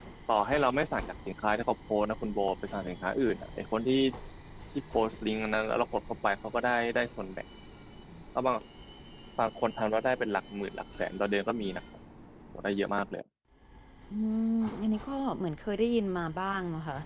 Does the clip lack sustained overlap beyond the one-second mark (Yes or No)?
Yes